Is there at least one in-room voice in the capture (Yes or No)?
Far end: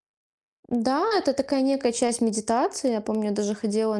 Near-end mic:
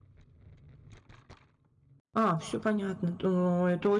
Yes